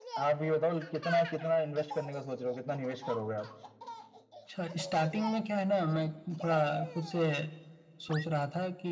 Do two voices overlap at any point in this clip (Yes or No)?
No